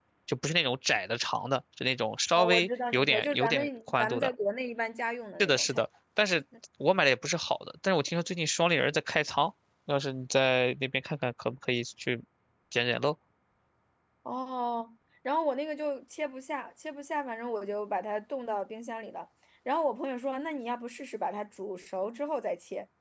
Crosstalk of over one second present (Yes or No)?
Yes